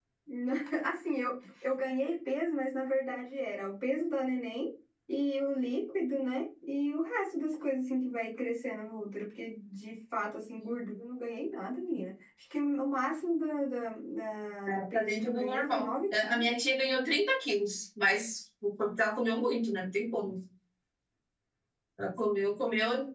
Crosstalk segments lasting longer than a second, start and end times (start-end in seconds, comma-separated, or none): 14.7-16.4